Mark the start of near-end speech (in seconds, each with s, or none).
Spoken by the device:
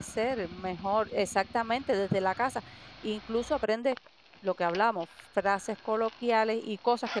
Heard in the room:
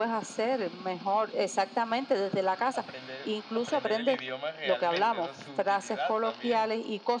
2.7 s